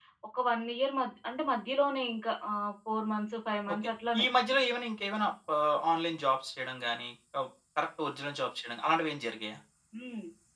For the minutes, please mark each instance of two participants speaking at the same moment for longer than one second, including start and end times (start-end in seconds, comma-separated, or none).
none